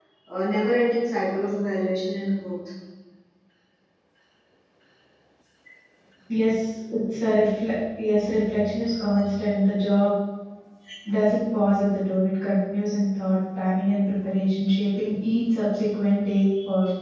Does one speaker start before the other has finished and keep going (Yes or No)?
No